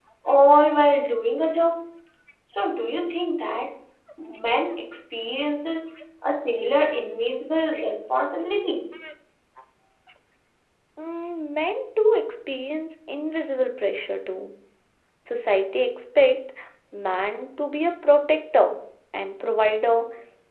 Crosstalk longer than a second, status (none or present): none